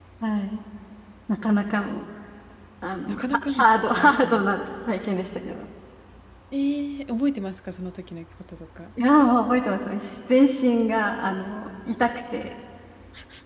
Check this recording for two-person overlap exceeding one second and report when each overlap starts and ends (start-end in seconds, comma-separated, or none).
3.1-4.4